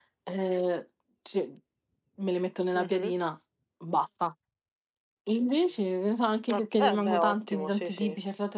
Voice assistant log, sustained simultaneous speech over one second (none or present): present